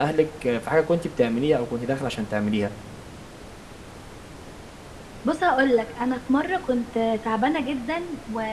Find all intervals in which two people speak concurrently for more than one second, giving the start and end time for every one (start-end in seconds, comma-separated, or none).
none